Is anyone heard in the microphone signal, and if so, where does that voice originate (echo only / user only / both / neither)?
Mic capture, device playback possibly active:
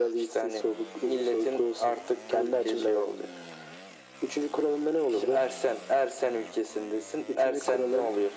echo only